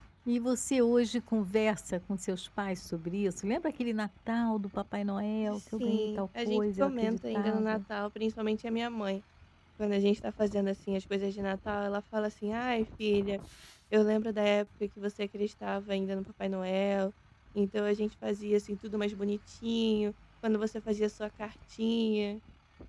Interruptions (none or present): present